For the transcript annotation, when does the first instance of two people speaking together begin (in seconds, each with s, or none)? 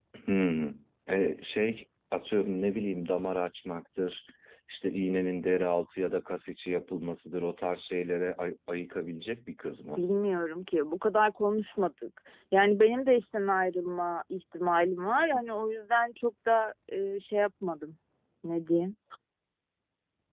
none